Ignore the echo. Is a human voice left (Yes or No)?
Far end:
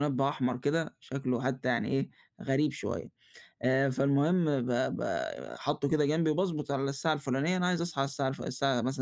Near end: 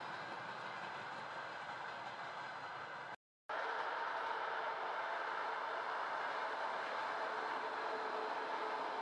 No